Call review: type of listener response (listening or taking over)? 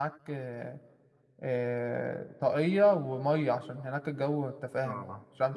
taking over